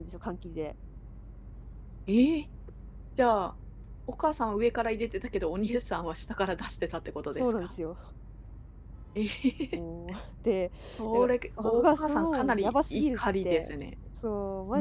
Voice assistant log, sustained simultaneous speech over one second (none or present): present